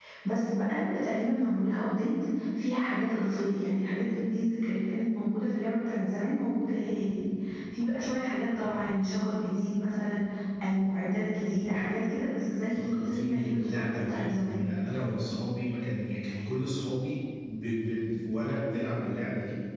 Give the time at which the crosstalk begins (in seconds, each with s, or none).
12.7 s